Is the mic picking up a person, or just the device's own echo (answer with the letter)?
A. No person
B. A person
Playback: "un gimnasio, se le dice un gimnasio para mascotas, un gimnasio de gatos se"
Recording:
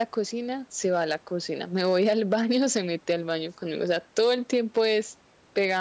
B